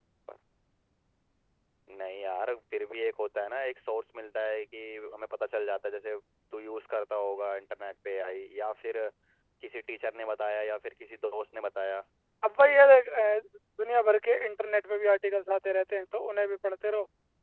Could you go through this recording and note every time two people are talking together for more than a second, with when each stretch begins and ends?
none

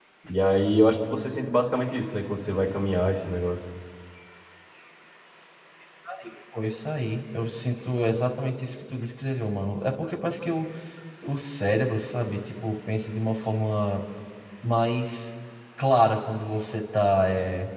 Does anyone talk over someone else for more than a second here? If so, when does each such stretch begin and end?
none

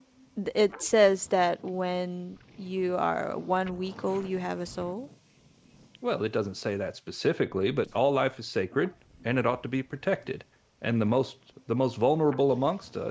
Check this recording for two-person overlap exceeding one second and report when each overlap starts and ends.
none

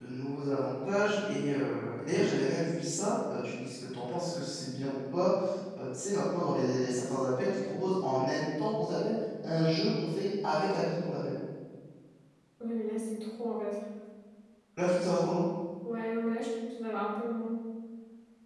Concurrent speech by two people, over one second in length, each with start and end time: none

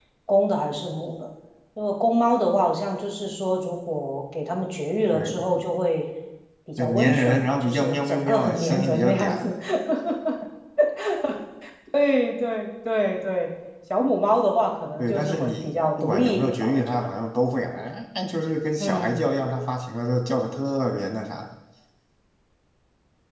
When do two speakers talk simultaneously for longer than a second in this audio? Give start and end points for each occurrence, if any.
6.8-9.5, 15.0-17.1

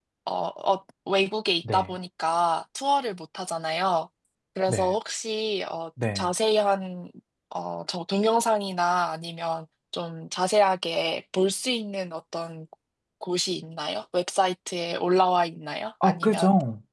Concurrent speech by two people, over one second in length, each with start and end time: none

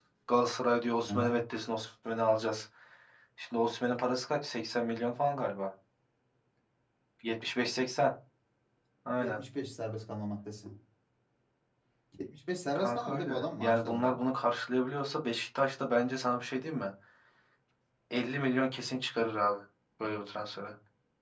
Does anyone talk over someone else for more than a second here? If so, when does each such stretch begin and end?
12.8-14.2

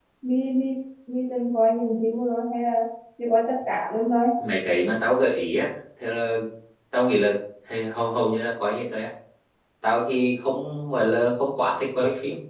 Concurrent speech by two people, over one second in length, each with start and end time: none

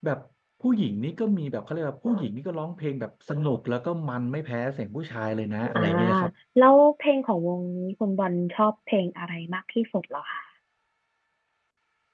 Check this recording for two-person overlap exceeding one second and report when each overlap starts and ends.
none

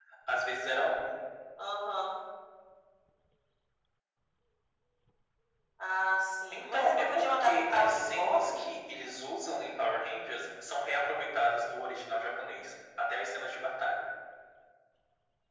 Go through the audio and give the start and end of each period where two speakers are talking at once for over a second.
6.5-8.7

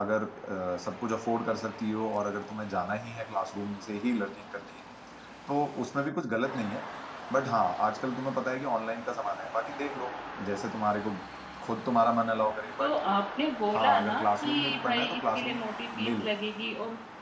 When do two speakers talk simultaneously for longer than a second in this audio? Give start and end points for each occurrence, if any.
13.7-15.6

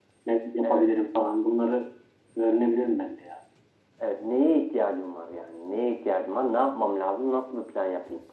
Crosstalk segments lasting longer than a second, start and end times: none

